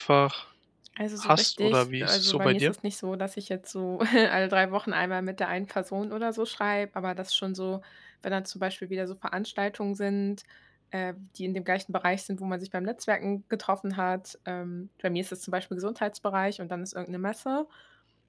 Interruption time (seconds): 1.2 s

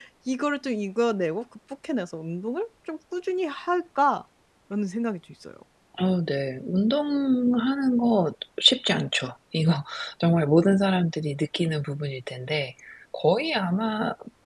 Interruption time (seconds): none

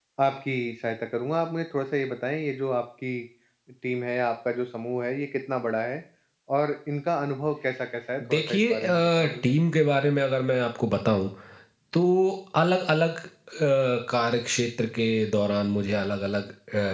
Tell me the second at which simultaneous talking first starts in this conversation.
8.2 s

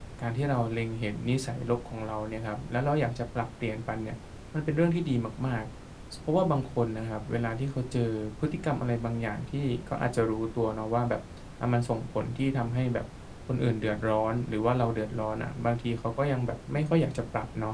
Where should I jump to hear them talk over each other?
none

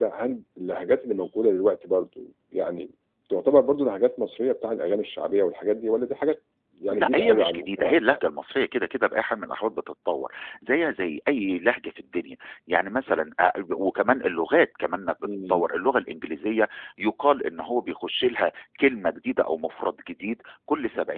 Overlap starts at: 6.9 s

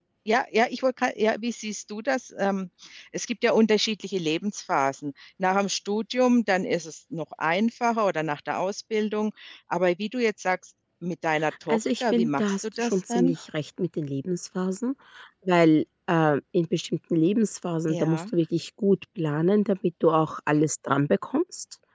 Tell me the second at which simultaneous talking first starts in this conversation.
11.7 s

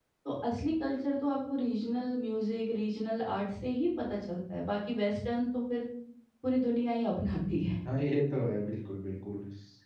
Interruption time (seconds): none

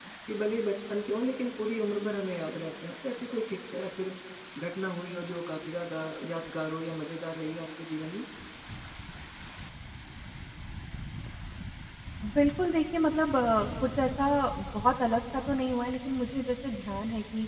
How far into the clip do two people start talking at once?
none

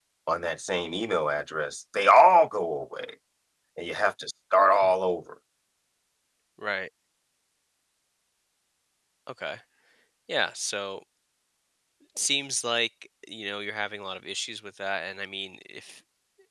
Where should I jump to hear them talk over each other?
none

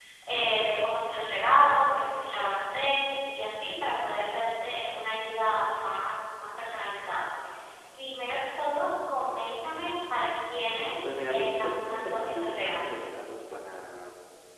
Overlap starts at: 11.0 s

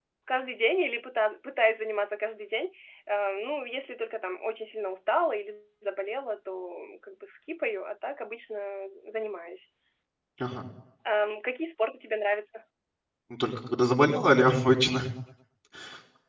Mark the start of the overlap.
none

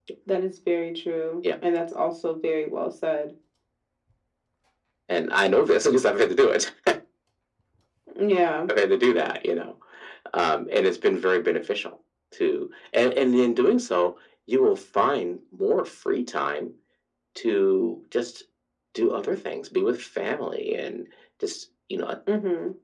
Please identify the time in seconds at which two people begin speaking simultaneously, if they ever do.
none

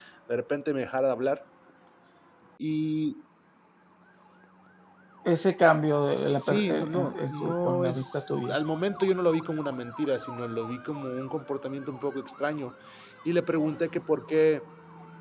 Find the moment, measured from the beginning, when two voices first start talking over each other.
6.4 s

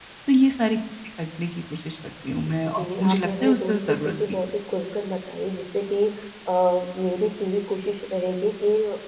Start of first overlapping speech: 2.6 s

